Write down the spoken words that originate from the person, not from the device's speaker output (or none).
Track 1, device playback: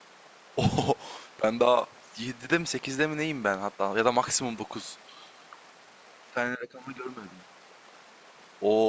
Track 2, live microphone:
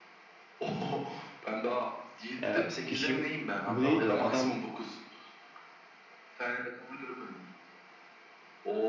Ya işim bu değildi ya. Adam